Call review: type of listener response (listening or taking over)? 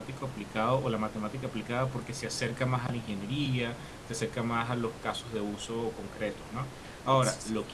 listening